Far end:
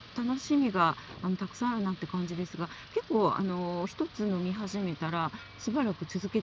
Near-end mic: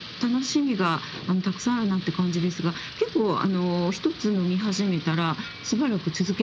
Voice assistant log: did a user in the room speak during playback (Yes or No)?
No